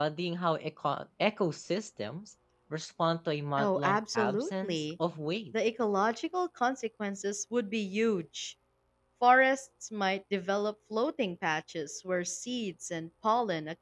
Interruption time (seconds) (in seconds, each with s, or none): 3.6 s